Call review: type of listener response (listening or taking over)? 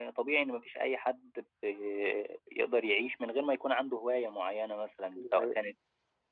listening